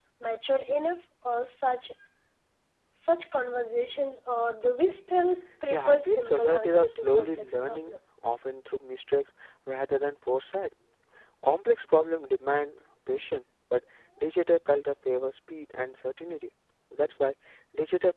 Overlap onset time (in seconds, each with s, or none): 5.7 s